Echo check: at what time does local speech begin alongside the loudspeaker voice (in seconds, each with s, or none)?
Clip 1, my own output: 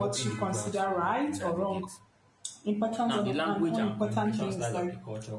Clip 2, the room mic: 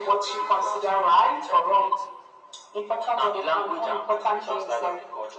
none